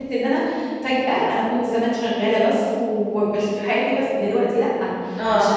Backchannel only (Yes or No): Yes